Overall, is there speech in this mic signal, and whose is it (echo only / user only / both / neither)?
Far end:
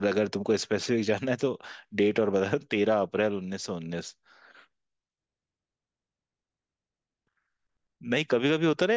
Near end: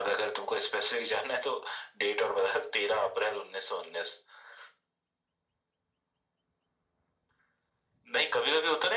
echo only